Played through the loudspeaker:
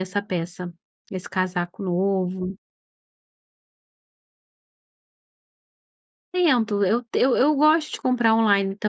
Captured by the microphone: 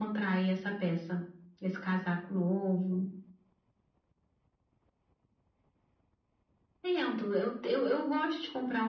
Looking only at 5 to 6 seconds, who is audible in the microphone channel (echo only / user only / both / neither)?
neither